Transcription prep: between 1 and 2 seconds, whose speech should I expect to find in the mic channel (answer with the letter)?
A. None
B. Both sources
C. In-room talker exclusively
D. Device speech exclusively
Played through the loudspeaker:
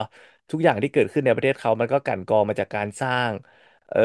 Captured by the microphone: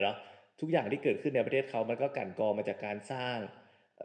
D